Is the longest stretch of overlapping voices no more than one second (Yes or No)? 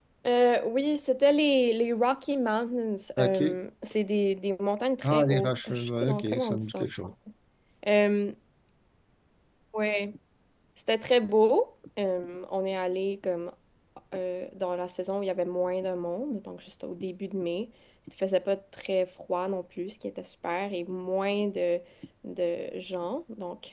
No